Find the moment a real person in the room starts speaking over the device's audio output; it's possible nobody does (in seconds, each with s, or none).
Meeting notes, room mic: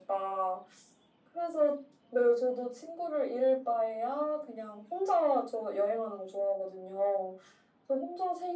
none